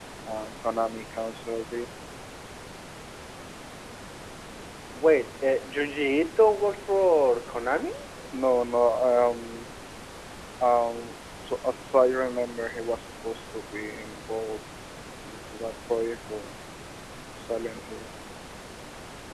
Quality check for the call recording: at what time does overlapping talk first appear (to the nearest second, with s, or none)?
none